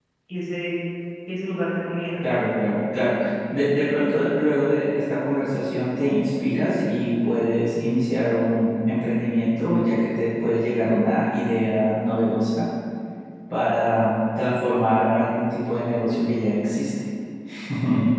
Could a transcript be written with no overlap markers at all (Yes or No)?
Yes